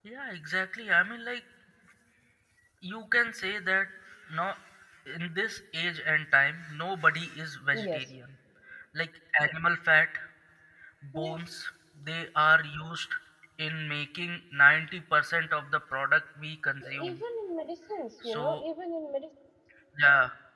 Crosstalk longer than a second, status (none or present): none